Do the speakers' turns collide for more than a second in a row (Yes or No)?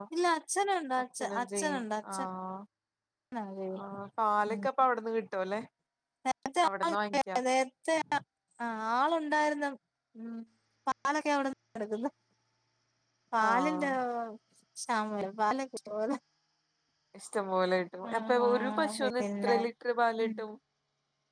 Yes